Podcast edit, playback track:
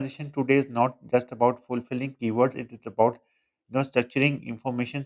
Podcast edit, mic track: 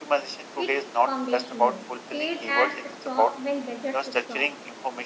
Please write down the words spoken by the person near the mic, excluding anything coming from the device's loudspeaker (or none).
It's foundational. Paid ads stop when budgets stop.